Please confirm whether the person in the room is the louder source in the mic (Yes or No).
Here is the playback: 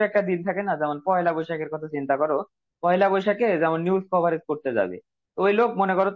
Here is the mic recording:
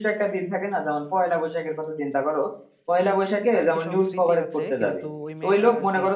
No